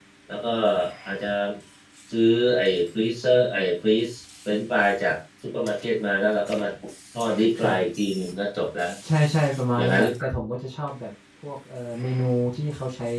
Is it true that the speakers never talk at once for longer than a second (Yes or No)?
Yes